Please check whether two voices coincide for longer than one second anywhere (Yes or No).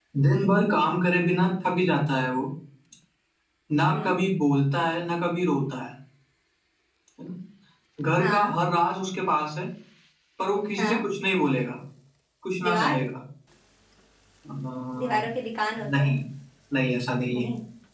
No